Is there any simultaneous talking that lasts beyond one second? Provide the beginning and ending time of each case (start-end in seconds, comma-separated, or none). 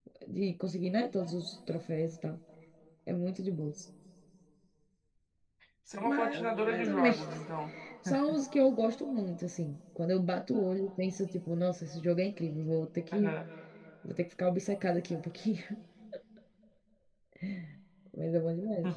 6.0-7.3